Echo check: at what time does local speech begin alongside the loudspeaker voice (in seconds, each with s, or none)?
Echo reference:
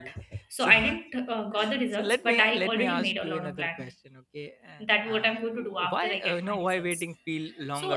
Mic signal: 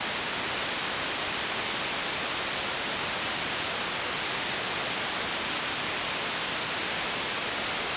none